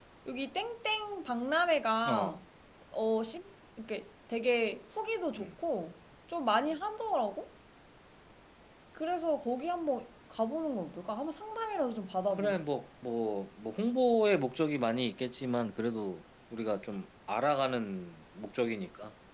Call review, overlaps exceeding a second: none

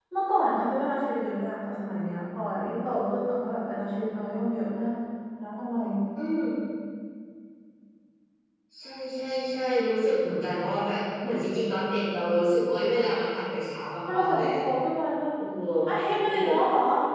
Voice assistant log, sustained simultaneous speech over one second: none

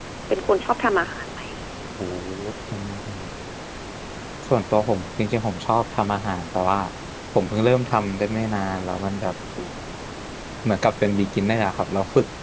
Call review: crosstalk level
none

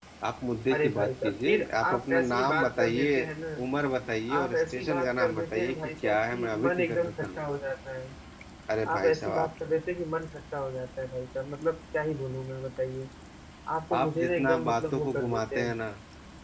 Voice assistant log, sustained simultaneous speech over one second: present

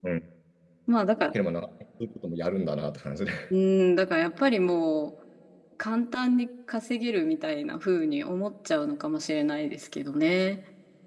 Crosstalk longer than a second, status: none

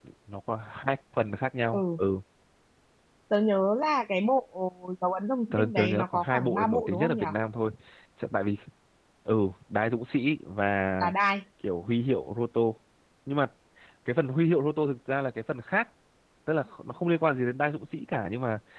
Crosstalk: present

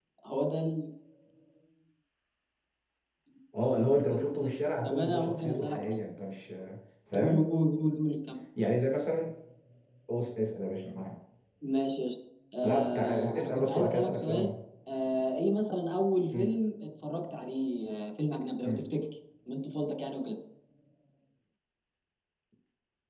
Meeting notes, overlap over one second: present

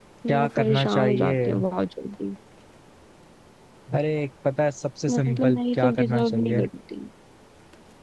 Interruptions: present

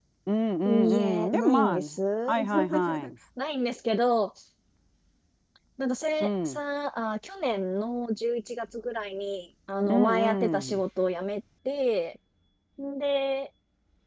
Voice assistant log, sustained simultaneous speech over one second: present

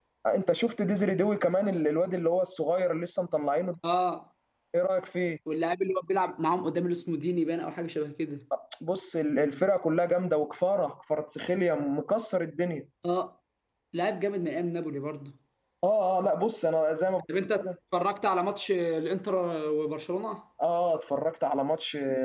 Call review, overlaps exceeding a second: none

